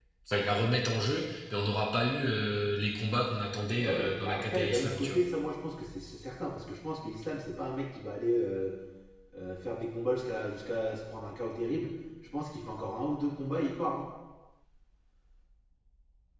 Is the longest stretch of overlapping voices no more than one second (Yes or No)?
No